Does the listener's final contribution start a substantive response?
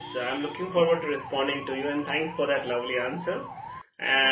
No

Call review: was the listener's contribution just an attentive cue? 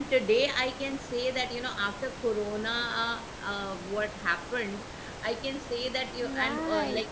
Yes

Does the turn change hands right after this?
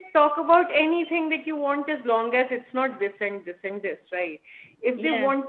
No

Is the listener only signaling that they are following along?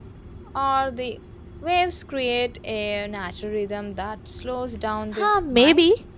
No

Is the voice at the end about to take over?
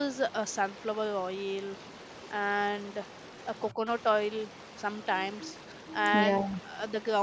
No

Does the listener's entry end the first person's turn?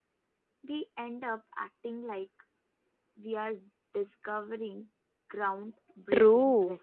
Yes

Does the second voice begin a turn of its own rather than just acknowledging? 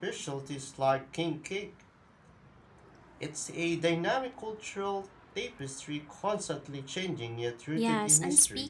Yes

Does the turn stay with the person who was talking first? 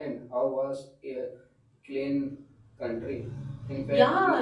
No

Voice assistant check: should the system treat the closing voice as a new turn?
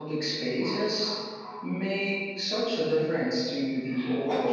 Yes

